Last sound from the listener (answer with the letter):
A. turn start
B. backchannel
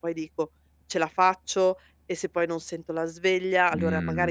B